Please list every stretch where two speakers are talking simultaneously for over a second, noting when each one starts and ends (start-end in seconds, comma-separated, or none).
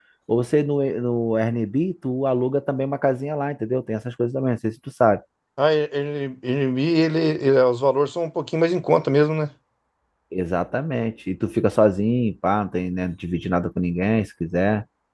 none